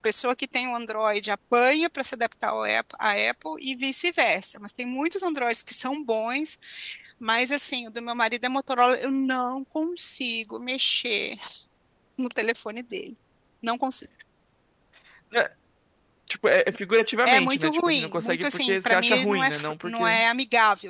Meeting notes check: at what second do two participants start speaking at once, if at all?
17 s

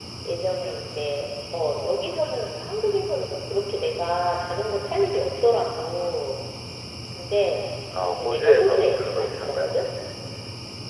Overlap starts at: 8 s

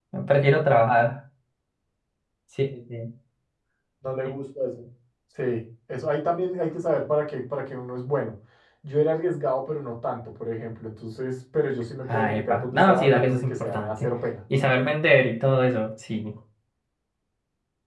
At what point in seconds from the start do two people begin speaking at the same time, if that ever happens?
12 s

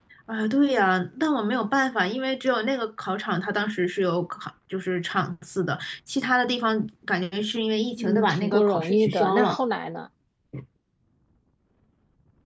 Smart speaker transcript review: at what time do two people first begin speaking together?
8 s

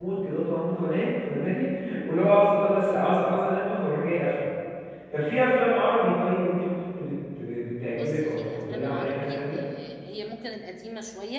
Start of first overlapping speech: 8 s

